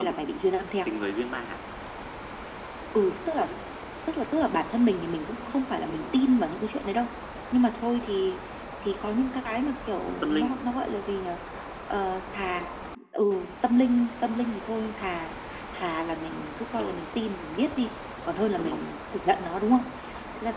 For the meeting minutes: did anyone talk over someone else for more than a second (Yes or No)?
No